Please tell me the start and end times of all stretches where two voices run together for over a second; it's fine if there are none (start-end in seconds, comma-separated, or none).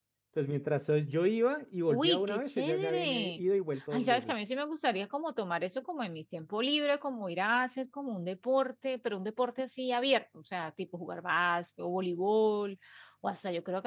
1.9-3.4